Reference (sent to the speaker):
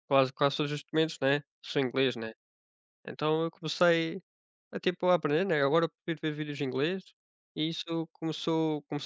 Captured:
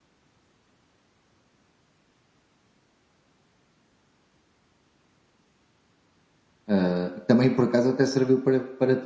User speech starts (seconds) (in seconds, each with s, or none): 6.7 s